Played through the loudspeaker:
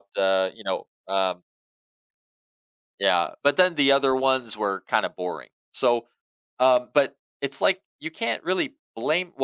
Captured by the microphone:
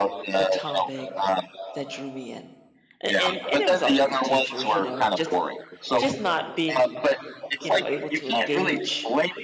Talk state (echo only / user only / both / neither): both